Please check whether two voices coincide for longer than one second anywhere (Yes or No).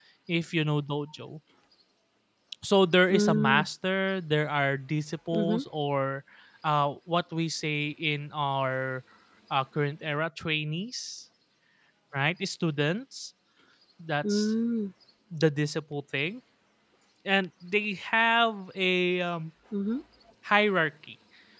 No